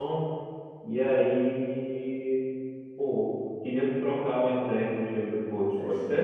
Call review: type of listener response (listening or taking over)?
taking over